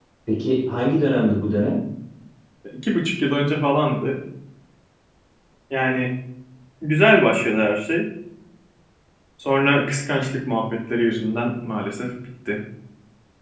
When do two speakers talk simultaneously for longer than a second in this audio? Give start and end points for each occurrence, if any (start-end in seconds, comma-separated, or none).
none